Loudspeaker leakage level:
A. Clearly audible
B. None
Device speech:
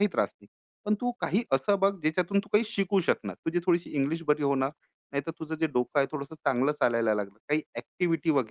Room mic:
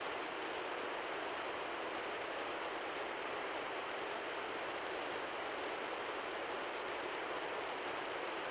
B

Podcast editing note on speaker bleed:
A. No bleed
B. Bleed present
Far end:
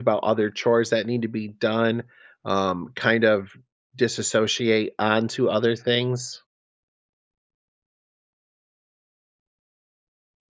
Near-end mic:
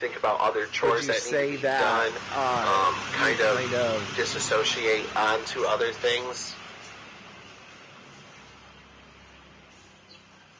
B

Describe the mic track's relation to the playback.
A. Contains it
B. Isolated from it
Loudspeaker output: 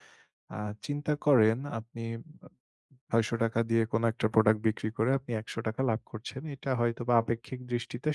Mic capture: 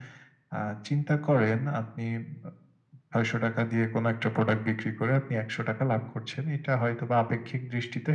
A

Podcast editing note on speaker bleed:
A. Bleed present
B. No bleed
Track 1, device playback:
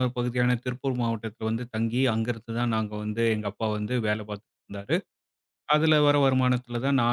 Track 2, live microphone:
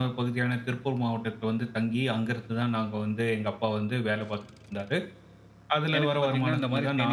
A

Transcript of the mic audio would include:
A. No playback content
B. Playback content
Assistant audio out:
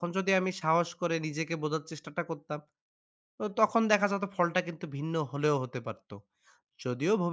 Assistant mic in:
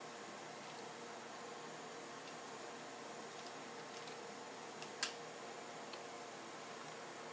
A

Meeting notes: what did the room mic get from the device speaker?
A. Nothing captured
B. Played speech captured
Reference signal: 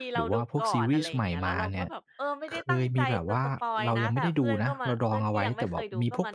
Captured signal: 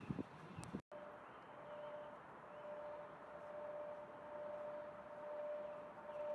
A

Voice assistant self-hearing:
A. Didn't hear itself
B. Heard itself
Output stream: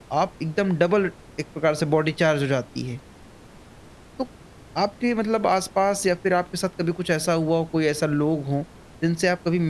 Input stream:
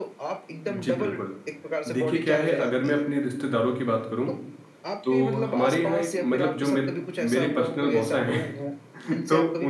B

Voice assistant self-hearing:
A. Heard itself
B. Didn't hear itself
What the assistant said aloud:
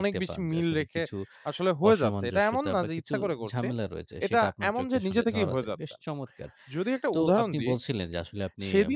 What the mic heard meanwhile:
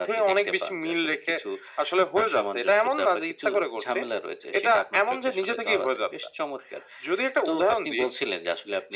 A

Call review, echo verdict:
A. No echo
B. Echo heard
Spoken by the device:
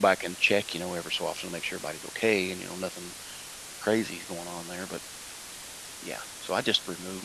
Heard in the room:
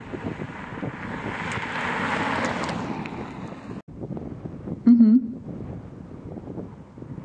A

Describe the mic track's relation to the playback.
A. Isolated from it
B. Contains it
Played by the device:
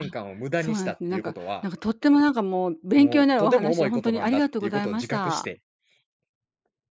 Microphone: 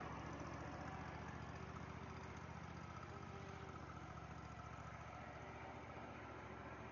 A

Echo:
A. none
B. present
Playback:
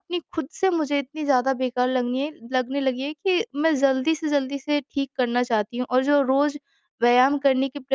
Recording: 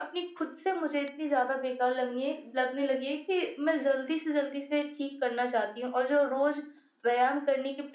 B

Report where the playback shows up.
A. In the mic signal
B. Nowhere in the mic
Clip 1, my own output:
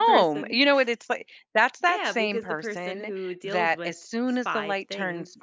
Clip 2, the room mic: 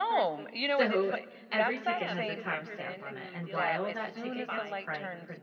A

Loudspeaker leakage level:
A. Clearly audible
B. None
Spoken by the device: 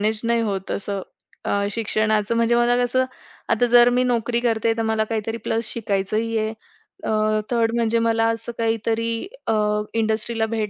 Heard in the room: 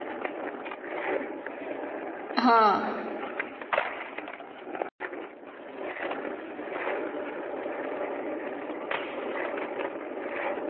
B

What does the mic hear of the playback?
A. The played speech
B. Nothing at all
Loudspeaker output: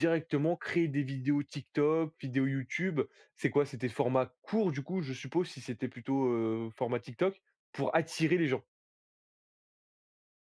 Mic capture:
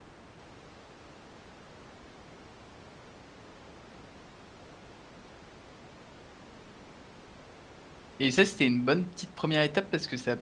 B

